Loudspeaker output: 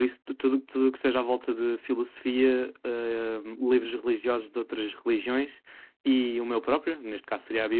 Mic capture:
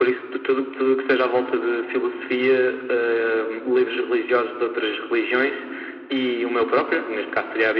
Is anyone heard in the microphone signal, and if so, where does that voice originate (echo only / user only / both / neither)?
echo only